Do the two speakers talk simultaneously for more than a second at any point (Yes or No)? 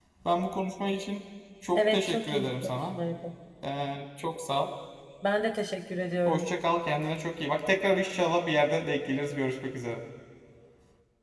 Yes